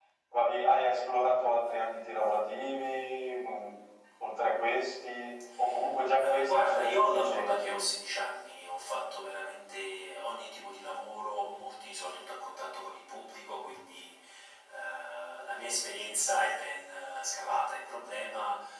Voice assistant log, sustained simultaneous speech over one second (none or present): present